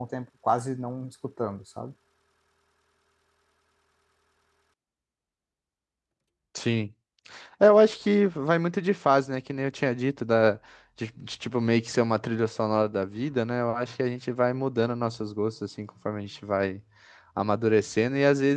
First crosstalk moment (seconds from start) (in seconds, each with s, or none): none